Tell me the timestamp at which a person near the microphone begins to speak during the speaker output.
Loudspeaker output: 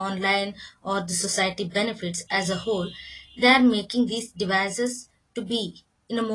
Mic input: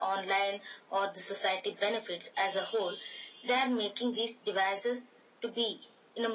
none

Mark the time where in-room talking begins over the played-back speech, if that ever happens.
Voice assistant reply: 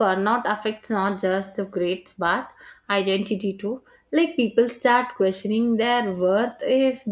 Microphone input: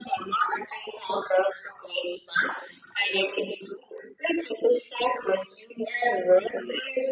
none

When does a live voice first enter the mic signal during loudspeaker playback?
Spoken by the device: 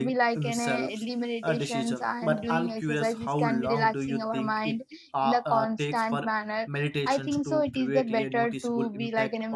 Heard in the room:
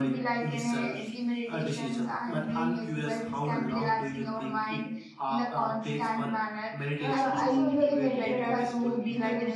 7 s

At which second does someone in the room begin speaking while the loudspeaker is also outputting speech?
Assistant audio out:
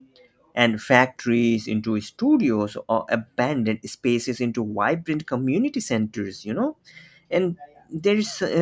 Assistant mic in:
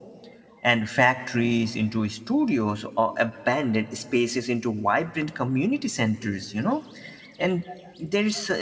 none

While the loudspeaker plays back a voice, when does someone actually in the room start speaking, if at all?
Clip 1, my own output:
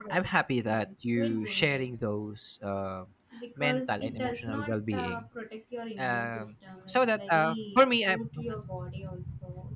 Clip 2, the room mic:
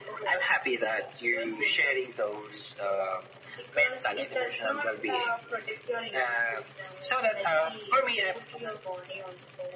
none

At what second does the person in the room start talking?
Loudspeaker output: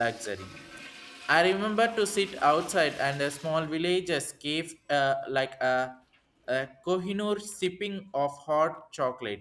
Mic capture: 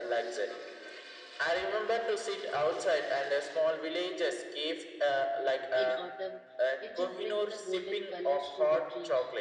6 s

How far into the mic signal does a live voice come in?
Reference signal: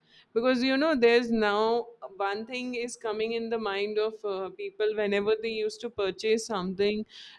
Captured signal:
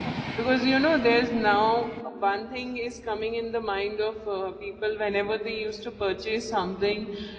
none

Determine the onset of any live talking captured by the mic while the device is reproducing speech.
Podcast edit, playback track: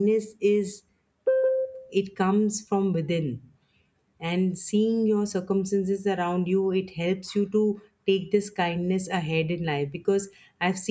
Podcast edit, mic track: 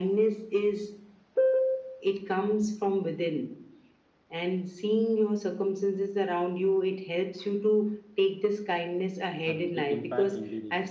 9 s

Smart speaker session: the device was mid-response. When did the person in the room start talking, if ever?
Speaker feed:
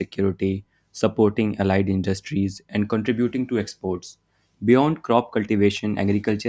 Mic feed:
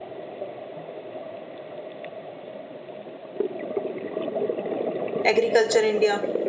5 s

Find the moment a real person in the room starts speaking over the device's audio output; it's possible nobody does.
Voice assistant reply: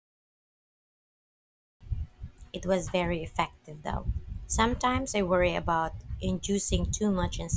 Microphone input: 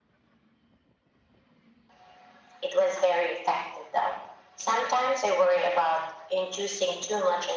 none

